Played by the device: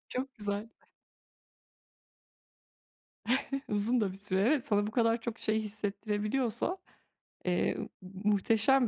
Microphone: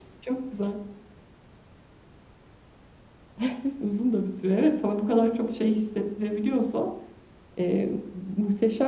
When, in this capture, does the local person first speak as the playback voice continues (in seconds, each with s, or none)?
none